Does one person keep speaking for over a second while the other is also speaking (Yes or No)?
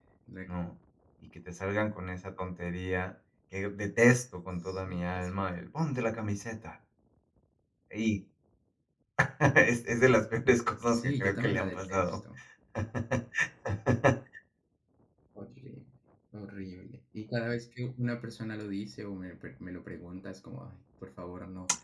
Yes